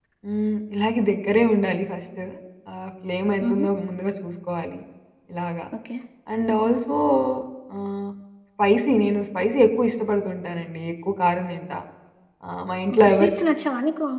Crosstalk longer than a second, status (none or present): none